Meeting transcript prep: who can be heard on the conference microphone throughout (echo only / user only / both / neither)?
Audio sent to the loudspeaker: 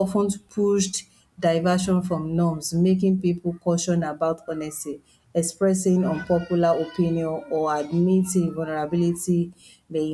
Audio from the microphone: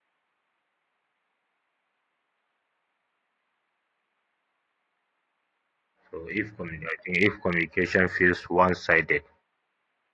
user only